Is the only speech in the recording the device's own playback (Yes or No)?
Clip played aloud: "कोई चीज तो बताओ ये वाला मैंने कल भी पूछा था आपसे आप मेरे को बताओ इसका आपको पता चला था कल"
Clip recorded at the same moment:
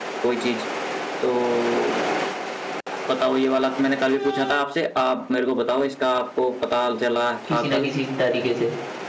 No